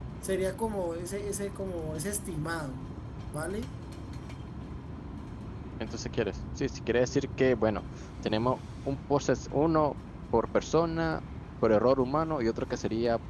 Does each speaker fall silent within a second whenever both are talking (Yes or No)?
Yes